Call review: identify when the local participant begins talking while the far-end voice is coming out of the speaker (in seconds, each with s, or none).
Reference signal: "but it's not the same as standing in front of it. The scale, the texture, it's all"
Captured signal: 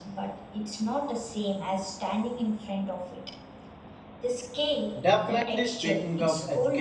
5.0 s